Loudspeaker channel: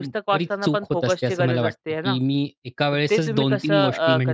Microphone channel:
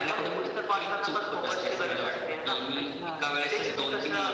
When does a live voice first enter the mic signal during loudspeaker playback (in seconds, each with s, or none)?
2.8 s